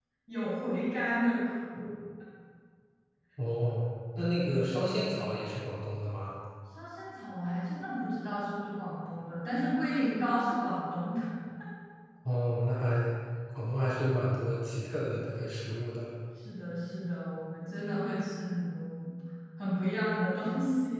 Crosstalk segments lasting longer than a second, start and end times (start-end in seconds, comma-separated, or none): none